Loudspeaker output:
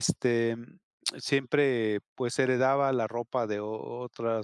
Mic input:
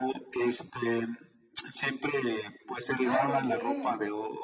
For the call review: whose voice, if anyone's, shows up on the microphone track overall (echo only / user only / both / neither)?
both